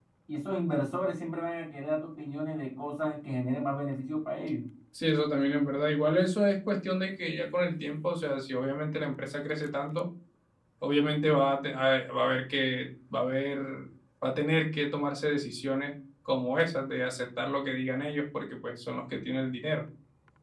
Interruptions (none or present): none